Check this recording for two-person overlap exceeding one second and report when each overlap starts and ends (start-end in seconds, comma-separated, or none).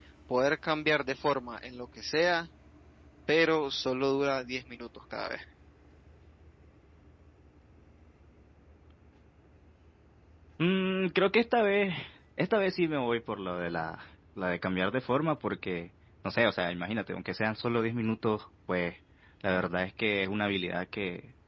none